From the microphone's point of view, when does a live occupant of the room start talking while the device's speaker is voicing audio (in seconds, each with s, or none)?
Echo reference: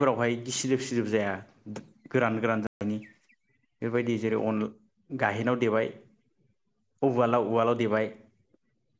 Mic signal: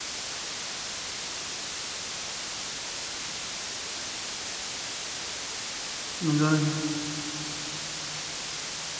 6.3 s